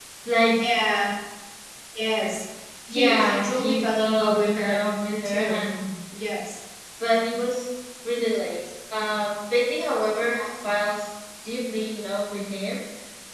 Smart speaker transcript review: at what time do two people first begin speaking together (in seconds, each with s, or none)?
2.9 s